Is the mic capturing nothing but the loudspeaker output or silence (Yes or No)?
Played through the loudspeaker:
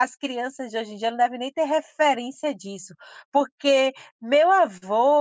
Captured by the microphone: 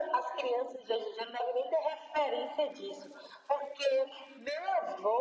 Yes